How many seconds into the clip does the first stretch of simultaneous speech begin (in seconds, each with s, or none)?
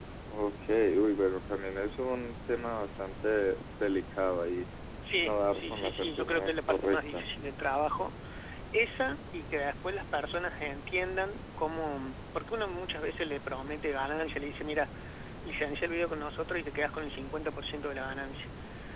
5.2 s